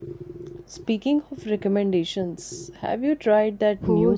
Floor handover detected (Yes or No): Yes